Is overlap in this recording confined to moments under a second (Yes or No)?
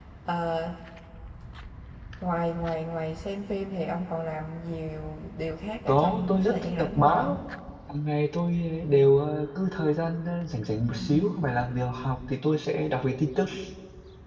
No